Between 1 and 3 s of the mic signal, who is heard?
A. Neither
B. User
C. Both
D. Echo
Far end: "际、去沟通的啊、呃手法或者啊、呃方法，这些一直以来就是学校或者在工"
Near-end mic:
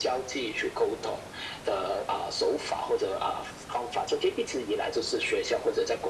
D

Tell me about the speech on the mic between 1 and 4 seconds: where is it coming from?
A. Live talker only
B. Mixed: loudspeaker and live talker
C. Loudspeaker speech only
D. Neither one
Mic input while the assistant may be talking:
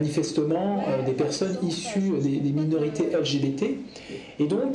B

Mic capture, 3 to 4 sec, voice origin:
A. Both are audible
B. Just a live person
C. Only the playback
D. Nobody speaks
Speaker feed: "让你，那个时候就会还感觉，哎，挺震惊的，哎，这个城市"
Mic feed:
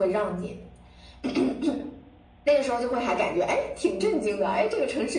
C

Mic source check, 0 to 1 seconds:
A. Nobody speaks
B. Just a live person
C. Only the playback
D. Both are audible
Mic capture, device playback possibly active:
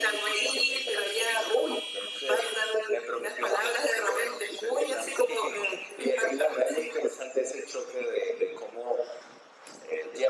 C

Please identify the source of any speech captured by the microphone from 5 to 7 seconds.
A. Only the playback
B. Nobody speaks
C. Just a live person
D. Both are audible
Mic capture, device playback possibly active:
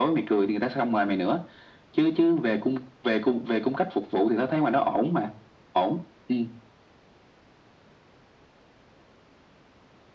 A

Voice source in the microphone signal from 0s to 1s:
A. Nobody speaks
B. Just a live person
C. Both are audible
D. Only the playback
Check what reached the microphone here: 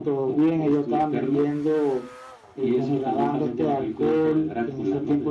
D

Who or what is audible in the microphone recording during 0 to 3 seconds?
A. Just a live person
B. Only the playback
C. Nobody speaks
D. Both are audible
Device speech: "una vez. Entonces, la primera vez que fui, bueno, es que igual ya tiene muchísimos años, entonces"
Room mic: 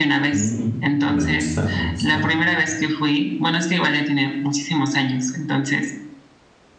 D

